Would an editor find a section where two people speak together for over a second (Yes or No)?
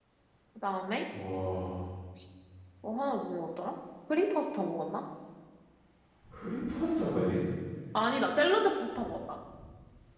No